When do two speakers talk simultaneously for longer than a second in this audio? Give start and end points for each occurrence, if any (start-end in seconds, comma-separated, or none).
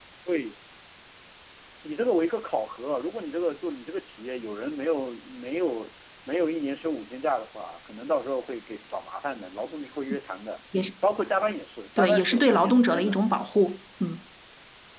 12.0-13.2